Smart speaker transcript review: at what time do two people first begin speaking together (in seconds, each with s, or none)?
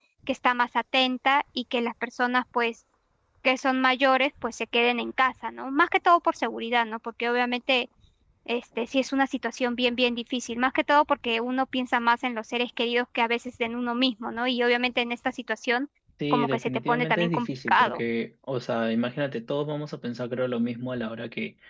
16.3 s